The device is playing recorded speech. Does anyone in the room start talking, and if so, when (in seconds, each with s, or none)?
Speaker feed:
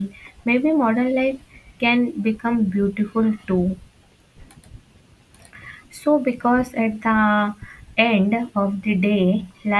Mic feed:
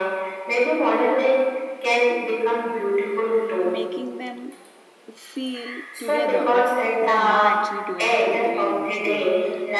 3.6 s